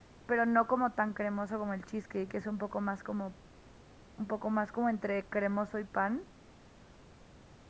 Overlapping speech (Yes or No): No